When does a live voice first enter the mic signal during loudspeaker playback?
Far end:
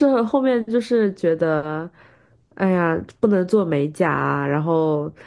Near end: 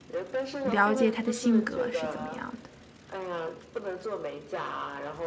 0.6 s

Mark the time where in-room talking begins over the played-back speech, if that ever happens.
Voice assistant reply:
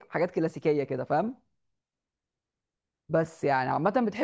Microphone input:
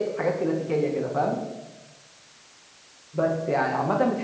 none

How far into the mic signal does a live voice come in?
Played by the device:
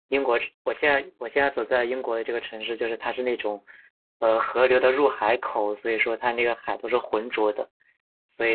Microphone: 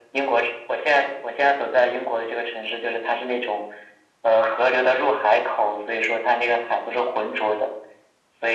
none

